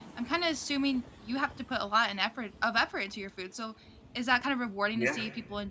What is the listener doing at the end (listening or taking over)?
listening